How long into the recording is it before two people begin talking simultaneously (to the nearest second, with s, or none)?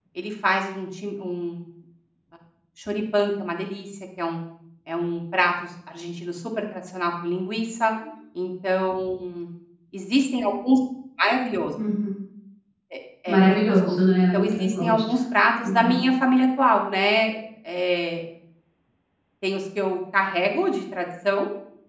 13 s